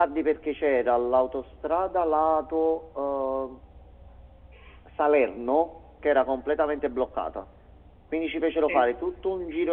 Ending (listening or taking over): listening